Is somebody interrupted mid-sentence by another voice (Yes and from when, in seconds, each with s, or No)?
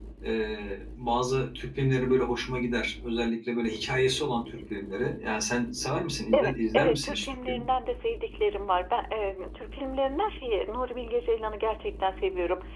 Yes, from 6.3 s